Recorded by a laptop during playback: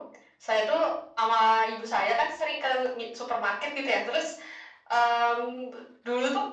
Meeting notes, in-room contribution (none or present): none